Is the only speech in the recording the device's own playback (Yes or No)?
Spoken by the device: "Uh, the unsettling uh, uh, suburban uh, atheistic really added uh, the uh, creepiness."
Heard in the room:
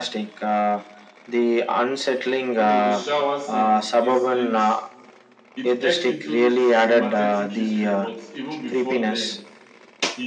No